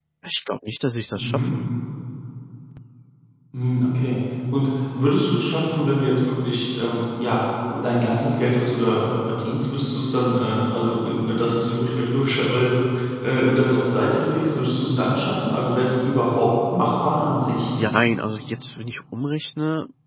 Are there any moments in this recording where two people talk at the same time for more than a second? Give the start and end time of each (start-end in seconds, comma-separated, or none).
none